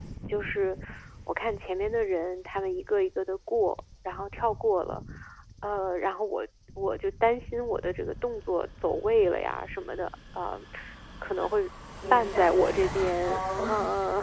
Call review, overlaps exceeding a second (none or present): present